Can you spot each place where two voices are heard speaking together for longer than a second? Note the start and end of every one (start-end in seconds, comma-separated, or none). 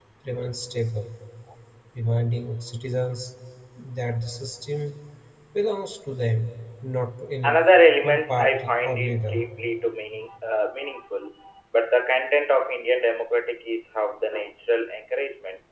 8.0-9.4